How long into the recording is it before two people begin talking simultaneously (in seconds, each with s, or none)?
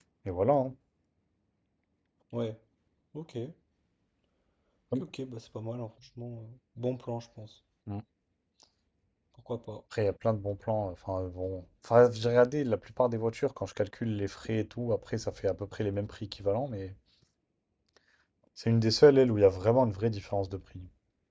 none